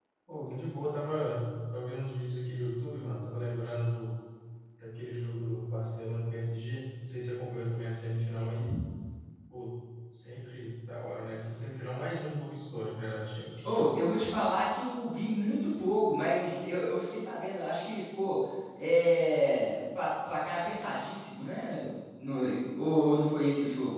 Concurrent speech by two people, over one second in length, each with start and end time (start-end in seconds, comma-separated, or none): none